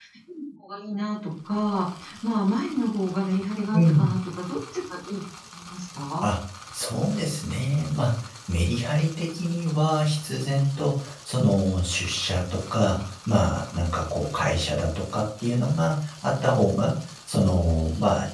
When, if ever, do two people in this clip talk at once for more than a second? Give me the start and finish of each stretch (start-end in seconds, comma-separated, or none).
none